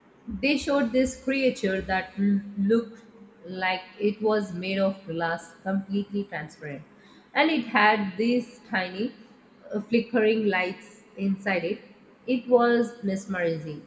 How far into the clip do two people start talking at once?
none

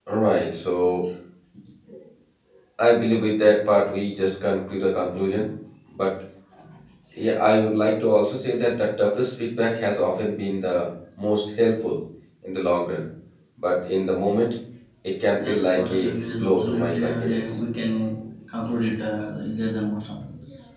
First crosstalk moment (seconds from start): 15.4 s

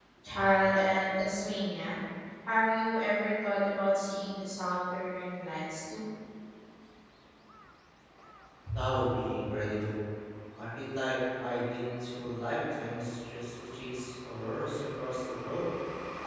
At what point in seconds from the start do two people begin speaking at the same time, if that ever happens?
none

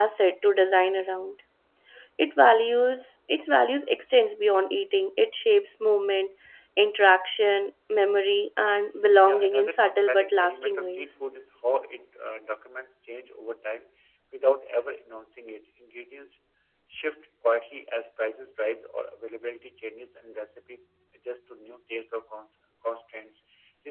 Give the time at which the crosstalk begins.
9.2 s

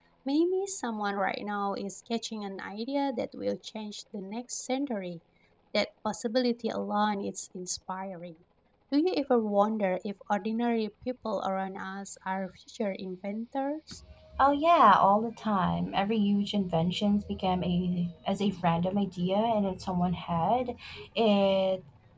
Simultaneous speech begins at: none

